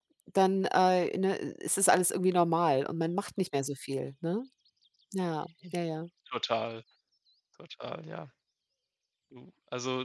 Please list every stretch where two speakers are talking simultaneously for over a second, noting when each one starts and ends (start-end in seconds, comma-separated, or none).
none